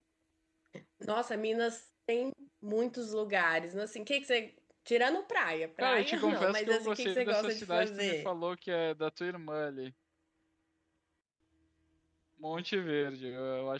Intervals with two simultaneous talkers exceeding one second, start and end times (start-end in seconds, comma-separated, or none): 5.8-8.3